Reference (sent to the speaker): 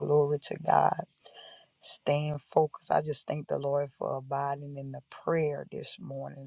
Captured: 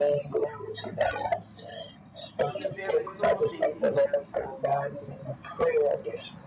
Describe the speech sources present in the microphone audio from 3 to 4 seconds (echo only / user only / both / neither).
both